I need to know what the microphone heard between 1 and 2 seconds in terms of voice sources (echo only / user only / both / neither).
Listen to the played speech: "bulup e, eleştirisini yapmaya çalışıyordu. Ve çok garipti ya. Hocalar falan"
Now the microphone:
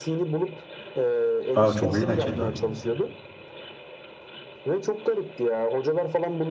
both